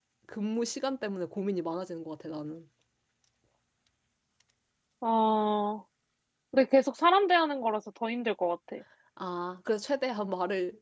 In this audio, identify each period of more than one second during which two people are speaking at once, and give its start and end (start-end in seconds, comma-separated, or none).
none